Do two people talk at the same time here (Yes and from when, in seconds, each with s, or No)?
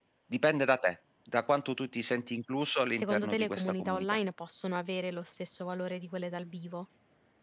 Yes, from 2.9 s